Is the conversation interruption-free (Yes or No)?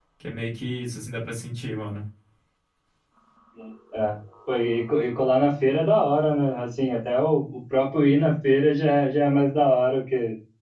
Yes